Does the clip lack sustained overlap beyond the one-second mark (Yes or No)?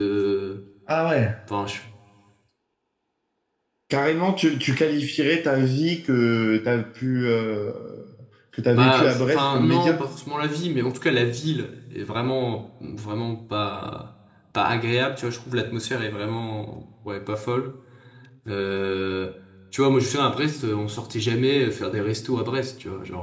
No